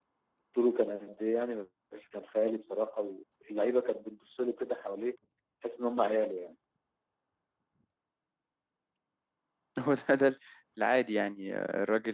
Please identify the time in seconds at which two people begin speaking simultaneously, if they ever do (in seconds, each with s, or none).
none